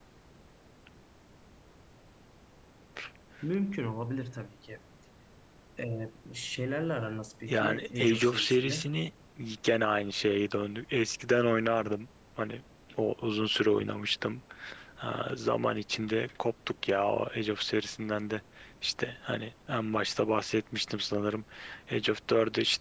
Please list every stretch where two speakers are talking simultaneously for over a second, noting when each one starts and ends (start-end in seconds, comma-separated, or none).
7.5-8.9